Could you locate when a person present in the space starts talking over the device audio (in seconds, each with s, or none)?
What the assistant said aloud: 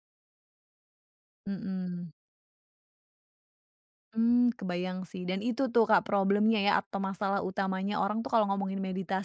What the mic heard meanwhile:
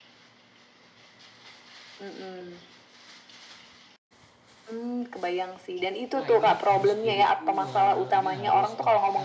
6.2 s